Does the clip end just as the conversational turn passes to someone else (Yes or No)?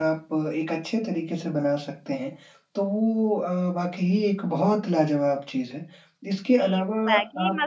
Yes